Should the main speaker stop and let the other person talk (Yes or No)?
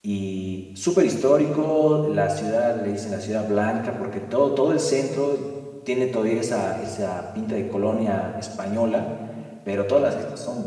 No